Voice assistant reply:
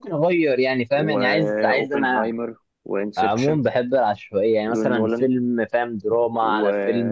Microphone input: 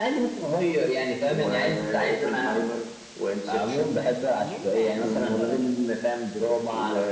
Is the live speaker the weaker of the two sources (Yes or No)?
Yes